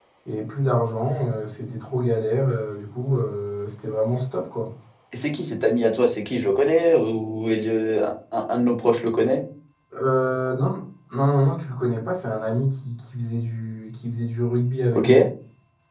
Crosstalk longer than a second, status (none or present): none